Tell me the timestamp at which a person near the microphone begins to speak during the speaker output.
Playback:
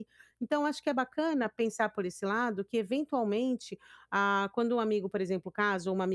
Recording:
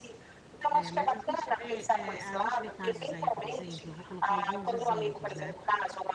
1 s

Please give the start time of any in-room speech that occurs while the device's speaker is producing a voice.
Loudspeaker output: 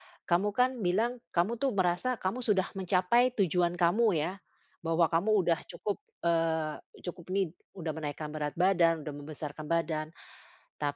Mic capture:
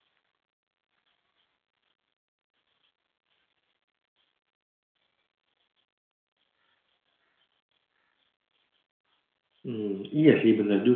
10 s

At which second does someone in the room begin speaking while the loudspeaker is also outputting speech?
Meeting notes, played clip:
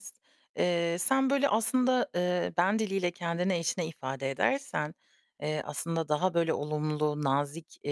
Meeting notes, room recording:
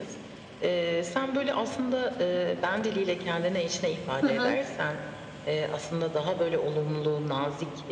4 s

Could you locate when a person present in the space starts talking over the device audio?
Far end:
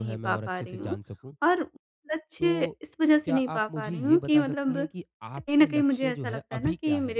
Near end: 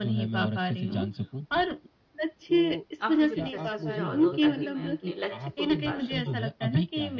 3 s

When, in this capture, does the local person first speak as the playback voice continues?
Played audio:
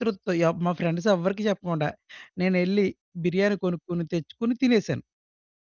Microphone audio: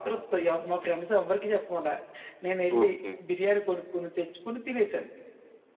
3 s

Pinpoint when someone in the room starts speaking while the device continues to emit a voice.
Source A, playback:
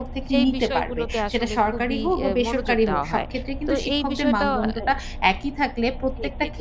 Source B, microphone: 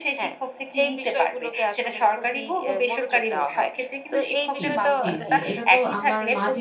5 s

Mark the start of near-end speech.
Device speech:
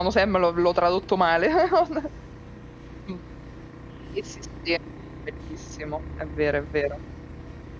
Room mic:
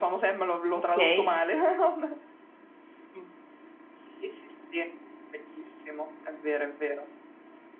1 s

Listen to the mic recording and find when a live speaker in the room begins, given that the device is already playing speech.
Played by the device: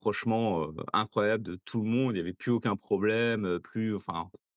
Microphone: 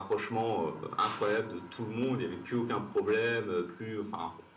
none

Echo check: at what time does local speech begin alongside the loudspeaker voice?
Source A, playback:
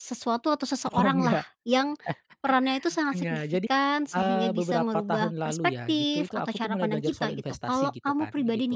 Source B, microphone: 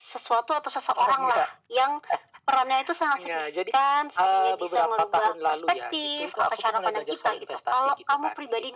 none

